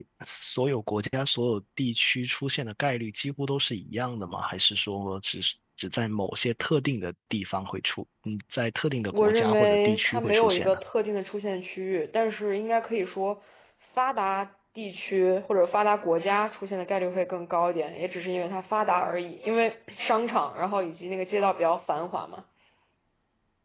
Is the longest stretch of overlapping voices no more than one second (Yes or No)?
No